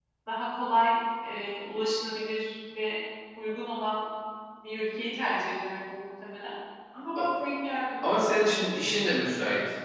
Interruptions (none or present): none